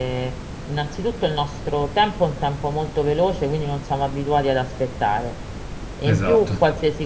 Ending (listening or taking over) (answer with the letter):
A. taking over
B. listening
B